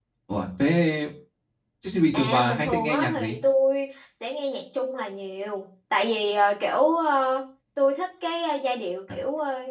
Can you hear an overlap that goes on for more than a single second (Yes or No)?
Yes